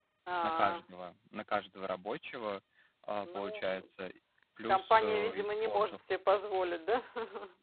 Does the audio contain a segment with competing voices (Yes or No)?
Yes